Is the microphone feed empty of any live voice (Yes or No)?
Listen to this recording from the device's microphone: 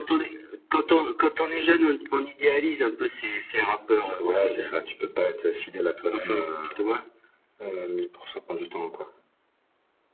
Yes